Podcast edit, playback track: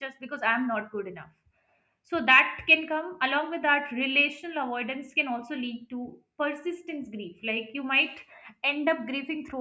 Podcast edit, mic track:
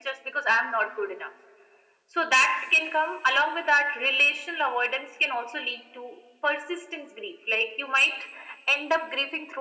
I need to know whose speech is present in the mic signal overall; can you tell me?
echo only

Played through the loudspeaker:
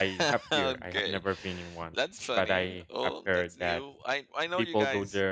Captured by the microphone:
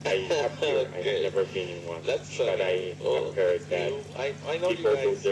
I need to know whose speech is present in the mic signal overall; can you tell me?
echo only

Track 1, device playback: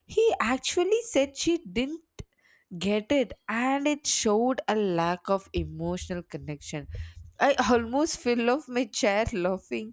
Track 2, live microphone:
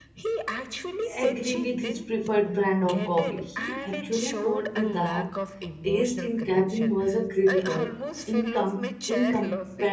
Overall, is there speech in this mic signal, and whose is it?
both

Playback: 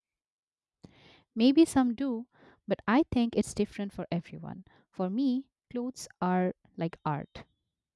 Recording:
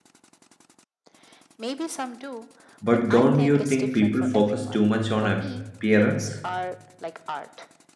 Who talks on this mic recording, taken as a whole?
both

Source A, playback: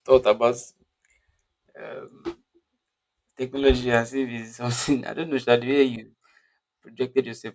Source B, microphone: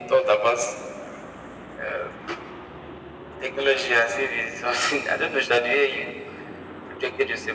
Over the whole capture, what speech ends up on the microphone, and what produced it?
echo only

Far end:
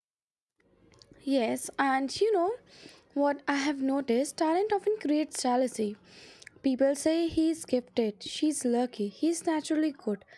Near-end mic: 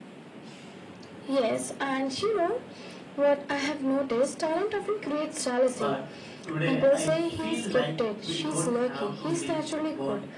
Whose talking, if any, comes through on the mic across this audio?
both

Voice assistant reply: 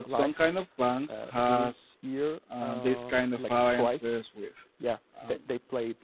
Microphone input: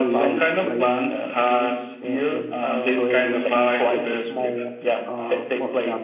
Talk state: both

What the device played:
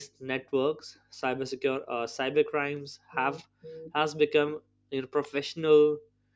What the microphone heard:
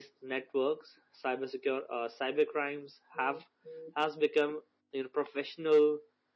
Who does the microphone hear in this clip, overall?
echo only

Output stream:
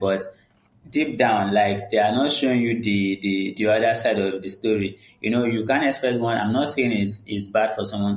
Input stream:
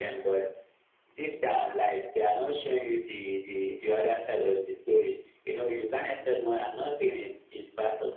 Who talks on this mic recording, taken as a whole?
echo only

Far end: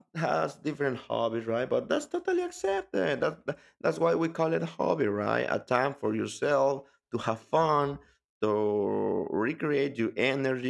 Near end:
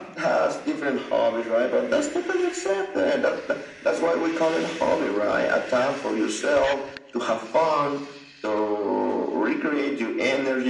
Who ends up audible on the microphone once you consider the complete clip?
echo only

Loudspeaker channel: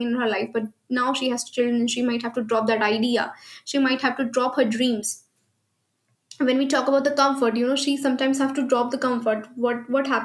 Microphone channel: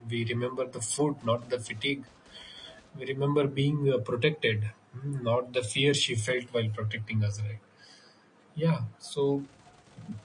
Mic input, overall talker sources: user only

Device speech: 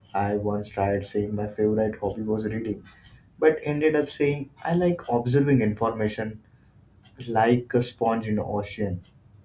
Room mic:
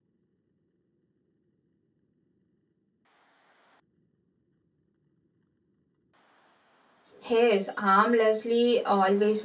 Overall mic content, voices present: user only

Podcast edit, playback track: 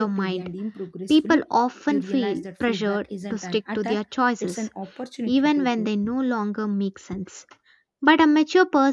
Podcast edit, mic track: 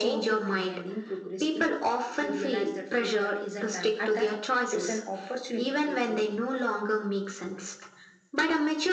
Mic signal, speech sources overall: echo only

